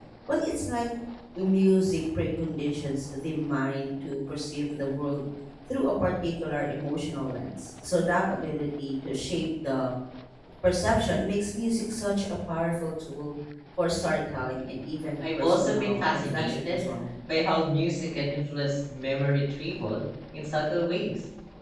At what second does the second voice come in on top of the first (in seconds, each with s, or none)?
15.2 s